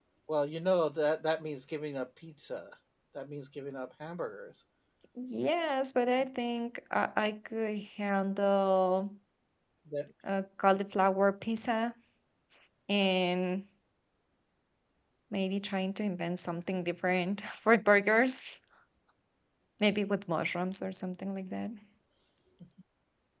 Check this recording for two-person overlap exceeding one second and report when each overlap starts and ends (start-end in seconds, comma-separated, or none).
none